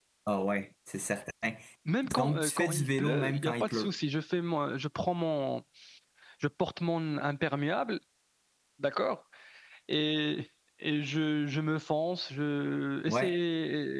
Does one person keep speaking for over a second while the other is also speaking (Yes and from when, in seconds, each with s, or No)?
Yes, from 2.2 s